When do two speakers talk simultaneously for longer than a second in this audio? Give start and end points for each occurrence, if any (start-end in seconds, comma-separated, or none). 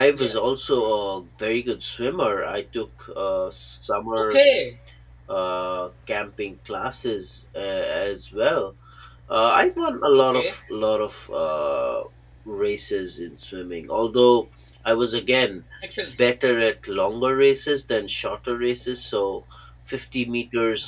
none